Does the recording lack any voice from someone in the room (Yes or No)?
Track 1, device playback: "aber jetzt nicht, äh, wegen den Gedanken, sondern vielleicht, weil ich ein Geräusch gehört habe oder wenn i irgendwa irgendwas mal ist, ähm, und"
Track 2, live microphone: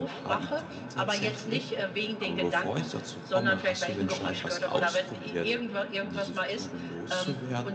No